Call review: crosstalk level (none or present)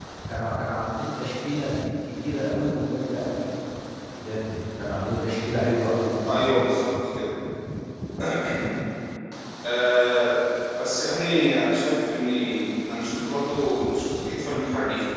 none